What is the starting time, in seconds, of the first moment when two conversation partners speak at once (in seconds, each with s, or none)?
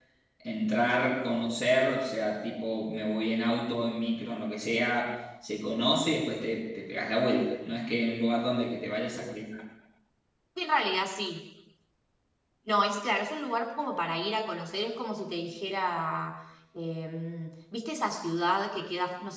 none